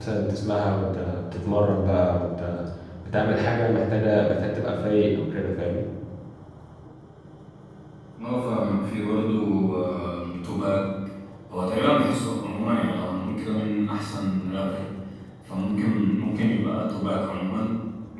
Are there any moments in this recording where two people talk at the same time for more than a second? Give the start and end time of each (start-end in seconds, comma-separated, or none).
none